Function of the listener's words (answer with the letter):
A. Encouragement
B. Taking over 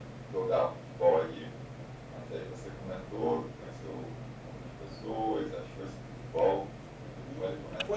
B